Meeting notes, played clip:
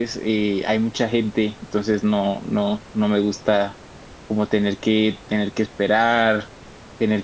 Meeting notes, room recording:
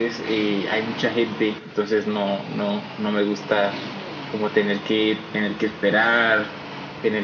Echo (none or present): present